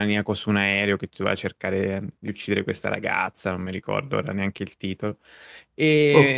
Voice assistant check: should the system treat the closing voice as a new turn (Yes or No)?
No